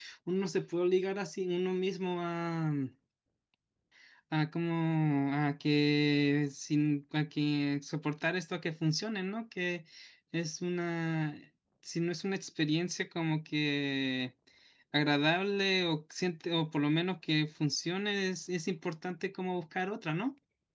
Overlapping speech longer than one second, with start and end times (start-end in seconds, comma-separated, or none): none